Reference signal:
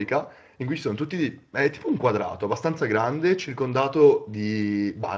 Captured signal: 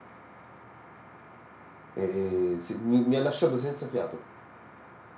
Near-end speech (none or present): present